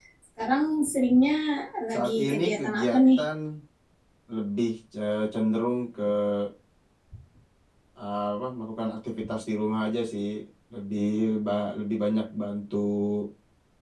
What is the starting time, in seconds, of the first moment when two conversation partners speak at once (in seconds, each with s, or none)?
1.9 s